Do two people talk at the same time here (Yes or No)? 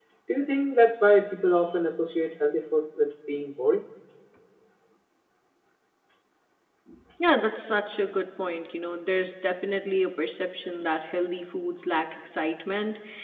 No